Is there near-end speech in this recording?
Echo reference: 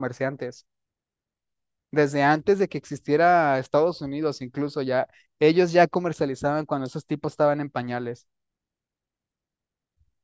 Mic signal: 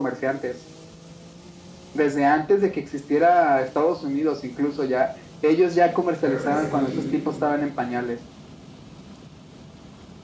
Yes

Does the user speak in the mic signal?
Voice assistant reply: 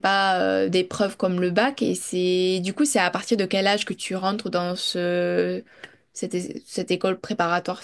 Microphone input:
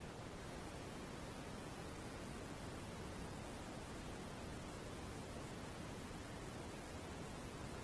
No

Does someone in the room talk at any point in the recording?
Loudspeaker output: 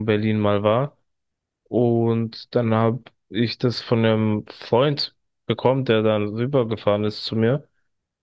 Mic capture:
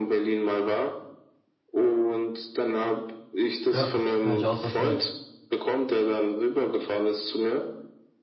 Yes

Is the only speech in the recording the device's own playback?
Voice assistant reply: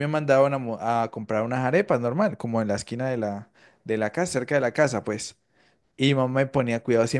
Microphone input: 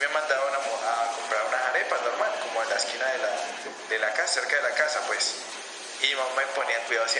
Yes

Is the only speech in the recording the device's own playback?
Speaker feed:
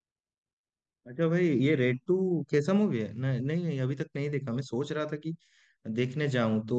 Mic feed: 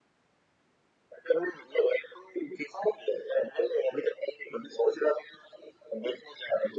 Yes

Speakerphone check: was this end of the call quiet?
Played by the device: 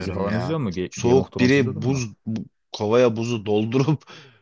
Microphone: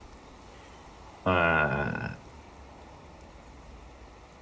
No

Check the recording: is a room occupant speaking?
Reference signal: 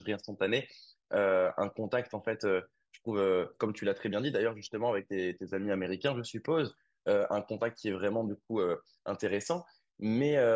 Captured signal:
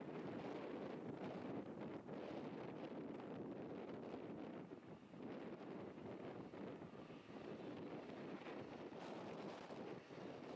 No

